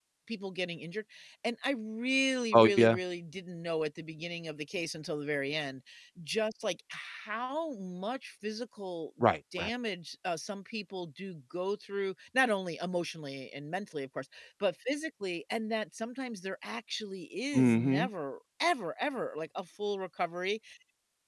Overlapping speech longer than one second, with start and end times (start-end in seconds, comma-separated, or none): none